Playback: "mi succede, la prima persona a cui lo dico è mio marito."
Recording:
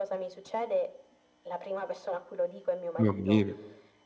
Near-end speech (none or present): present